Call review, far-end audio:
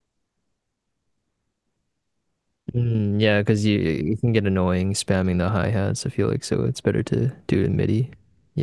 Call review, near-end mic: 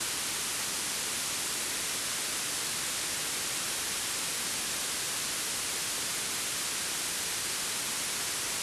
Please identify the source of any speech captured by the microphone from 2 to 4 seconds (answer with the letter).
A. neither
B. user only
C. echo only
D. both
A